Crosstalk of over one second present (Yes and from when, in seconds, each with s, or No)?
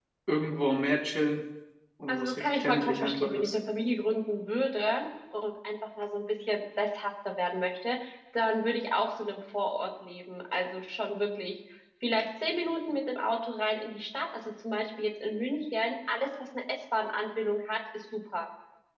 Yes, from 2.1 s